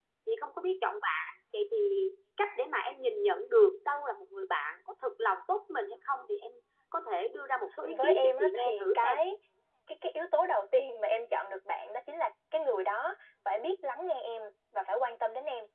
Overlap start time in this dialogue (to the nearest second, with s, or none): 8 s